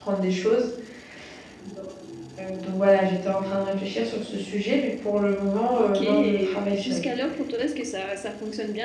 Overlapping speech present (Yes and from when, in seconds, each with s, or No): Yes, from 5.8 s